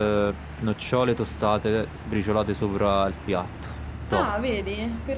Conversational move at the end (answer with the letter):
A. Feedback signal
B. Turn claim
B